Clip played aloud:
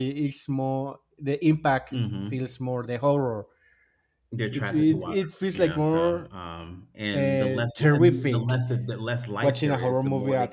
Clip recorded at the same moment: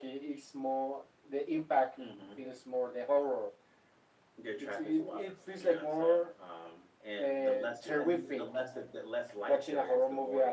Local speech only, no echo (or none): none